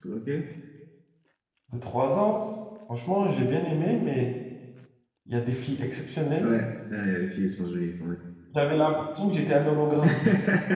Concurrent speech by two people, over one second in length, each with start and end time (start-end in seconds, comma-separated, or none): none